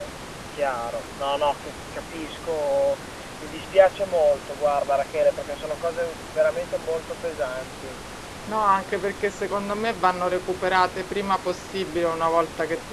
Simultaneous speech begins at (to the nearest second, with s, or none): none